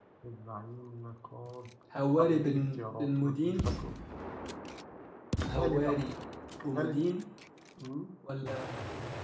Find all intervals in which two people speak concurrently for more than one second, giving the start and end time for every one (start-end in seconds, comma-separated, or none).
2.2-3.5